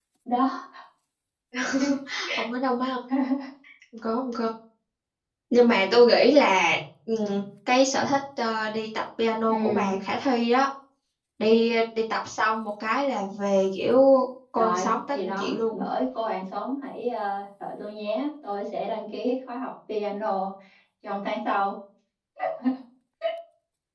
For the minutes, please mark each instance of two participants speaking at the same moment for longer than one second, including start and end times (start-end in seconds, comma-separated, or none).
14.6-15.8